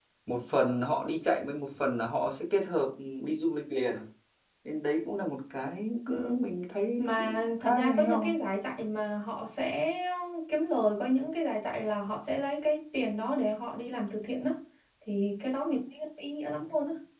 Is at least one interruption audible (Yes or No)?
Yes